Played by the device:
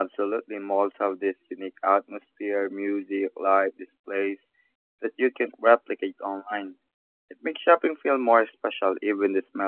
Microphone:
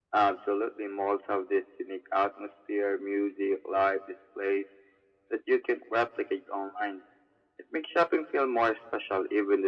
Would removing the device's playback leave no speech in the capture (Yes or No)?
Yes